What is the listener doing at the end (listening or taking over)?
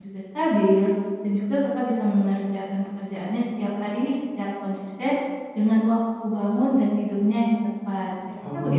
taking over